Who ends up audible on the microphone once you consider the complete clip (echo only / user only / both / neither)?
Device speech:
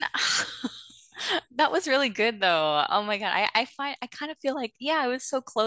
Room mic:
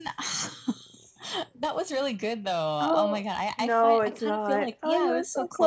both